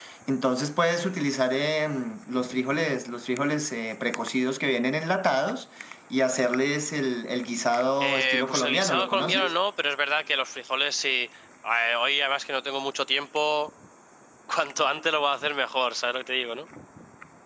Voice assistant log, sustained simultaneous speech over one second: present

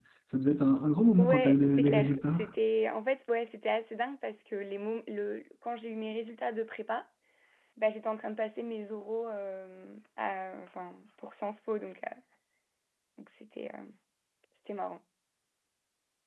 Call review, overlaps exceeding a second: present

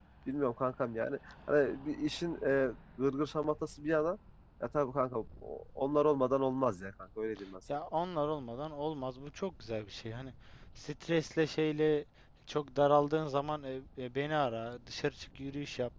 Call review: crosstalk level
none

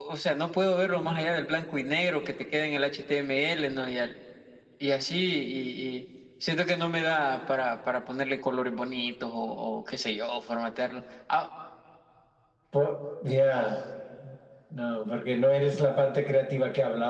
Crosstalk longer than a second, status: none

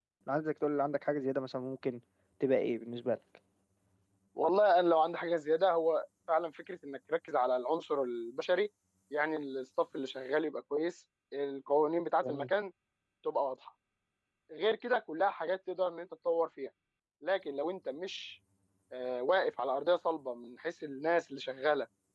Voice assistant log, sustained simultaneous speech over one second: none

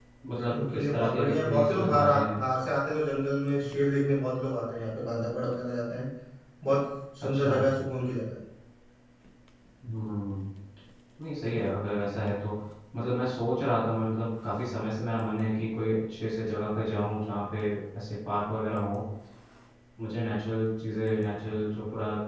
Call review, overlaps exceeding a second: present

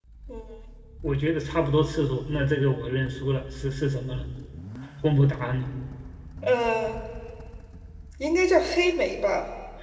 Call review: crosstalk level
none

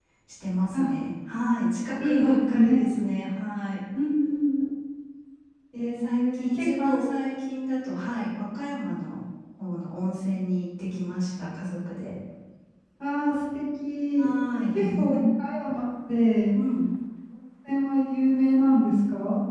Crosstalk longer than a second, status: present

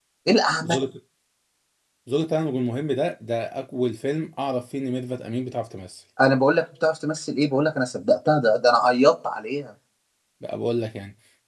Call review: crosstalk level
none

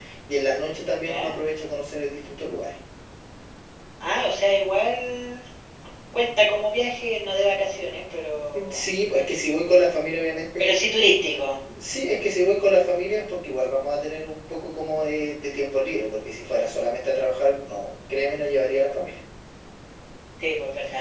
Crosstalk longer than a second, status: none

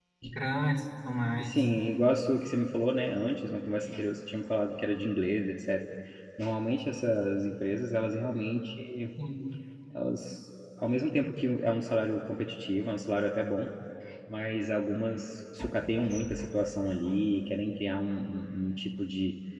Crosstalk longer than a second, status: none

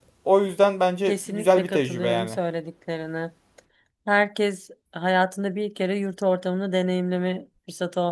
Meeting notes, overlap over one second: present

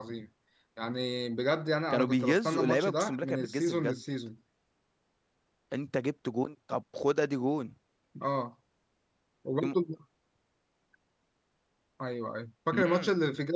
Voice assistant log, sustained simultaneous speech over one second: present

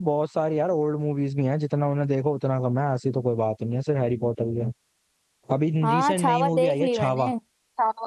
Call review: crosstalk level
present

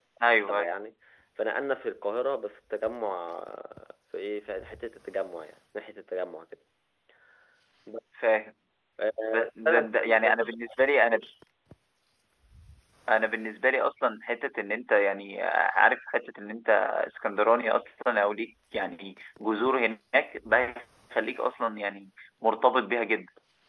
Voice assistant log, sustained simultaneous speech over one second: present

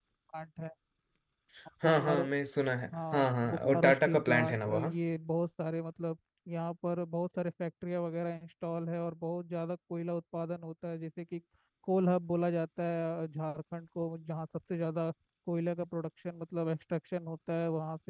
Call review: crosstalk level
present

